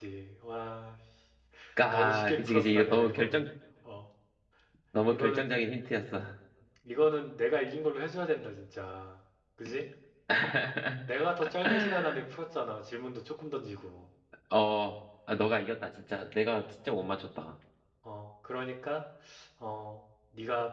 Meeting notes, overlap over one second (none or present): present